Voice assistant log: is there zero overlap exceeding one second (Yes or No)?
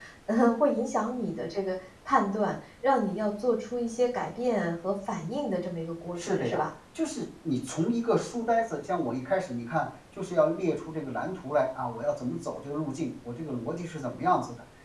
Yes